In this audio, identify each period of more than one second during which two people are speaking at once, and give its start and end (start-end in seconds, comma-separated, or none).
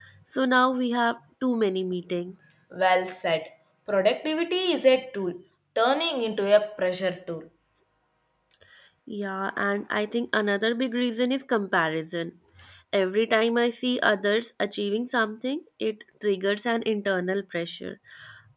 none